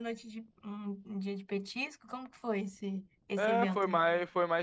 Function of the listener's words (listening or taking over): taking over